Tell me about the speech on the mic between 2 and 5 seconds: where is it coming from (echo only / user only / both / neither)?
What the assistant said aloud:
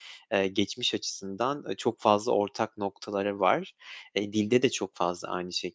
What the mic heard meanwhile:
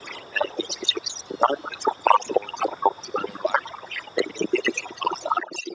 echo only